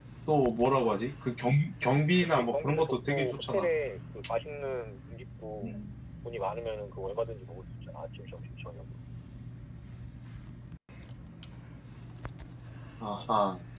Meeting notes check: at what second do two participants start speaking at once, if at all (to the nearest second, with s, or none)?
2 s